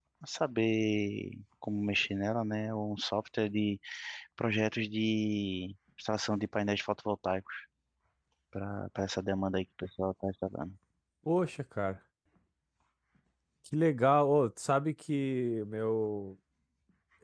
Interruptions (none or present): none